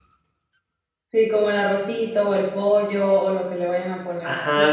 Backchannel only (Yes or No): No